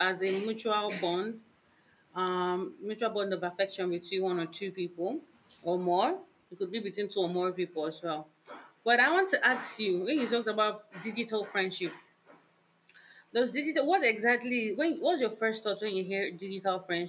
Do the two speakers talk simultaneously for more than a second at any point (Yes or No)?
No